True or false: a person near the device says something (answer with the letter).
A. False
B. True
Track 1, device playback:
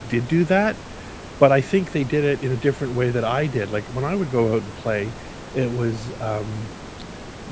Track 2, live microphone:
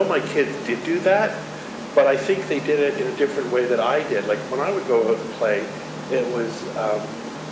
A